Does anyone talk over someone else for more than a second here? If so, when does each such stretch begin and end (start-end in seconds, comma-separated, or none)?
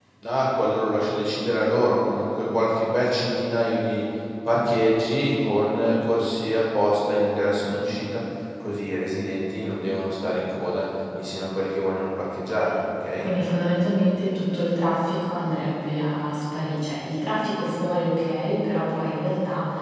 none